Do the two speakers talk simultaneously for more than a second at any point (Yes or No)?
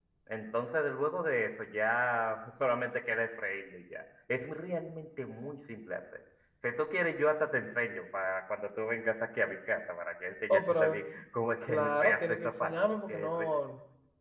Yes